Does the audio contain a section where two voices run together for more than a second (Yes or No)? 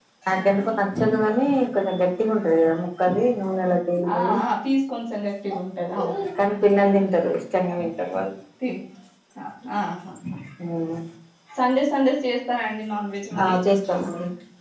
No